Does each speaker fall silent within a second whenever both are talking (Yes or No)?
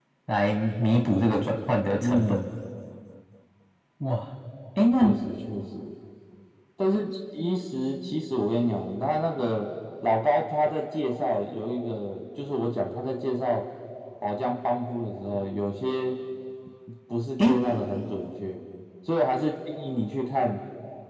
Yes